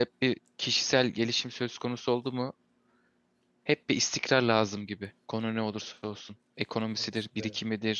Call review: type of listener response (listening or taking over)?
listening